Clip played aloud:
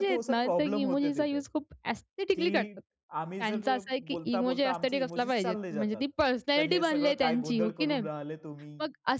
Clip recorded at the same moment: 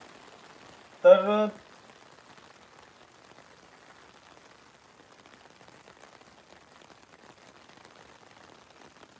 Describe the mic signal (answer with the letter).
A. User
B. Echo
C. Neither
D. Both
A